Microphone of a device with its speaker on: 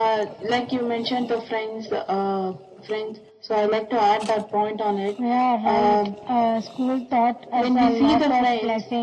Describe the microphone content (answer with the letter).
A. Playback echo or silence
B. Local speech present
A